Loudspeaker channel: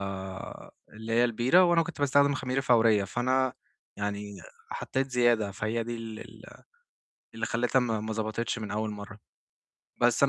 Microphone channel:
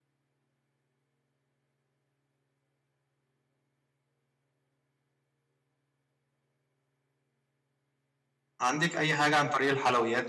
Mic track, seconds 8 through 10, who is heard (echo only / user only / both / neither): user only